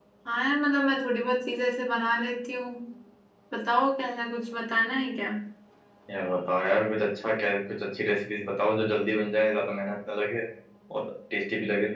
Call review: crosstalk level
none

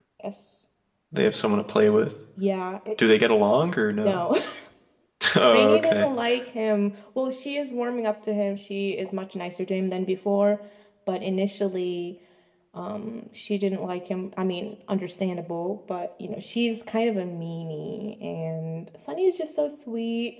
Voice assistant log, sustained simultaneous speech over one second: none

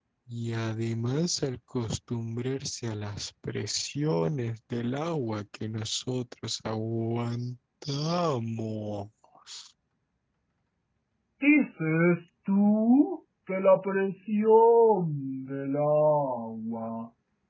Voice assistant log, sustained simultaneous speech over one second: none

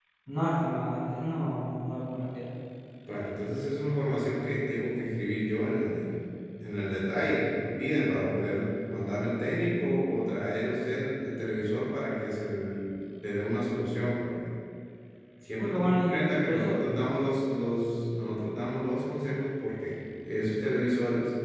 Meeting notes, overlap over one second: present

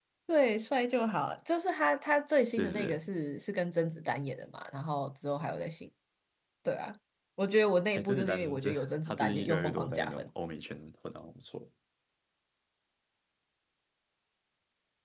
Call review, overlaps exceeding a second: present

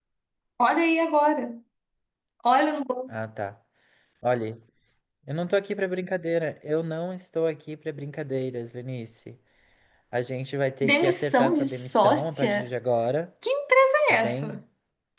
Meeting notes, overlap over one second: present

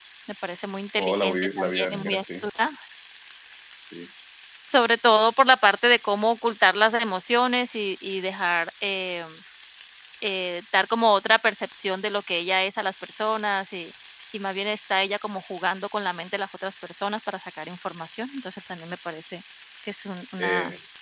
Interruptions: present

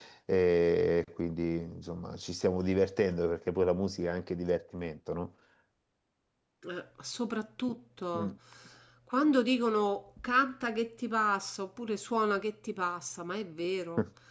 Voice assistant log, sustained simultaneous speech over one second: none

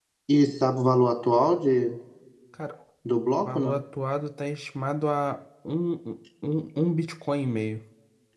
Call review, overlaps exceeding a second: none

